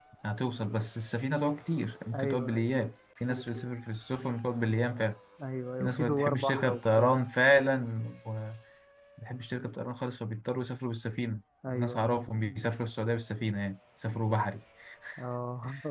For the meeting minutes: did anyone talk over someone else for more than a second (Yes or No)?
Yes